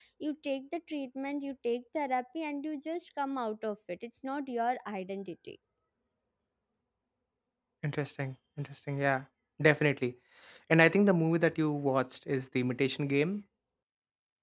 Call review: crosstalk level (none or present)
none